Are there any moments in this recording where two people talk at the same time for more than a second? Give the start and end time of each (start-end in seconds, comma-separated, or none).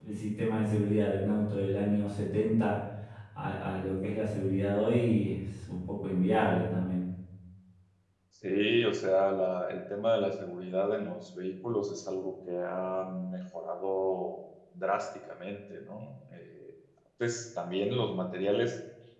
none